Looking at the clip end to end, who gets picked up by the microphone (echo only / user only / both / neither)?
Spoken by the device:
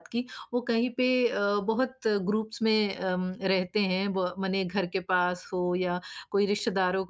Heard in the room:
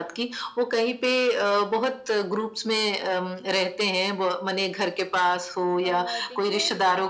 both